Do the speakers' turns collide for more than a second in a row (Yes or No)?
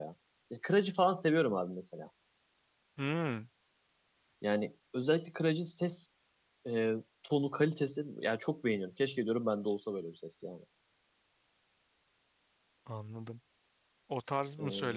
No